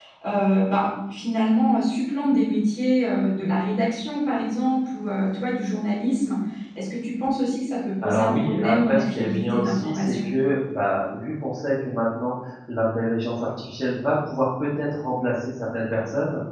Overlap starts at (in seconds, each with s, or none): 8.0 s